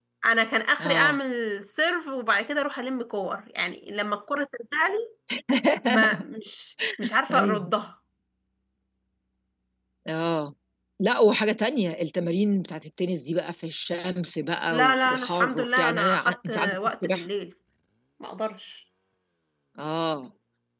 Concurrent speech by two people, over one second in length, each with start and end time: 14.7-17.3

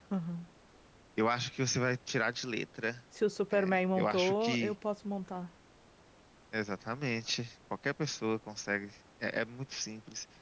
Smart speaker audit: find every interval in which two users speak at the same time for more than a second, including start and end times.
3.5-4.7

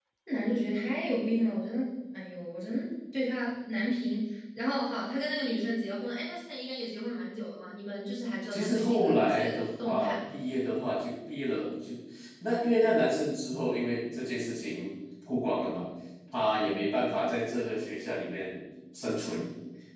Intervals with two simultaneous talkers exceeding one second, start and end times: 8.5-10.3

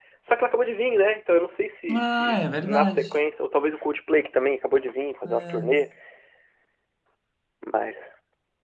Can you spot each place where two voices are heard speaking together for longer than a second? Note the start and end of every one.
1.9-3.2

